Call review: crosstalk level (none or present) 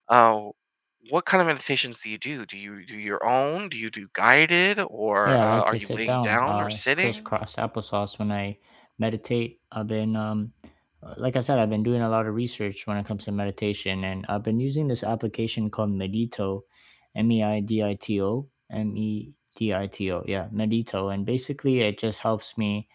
present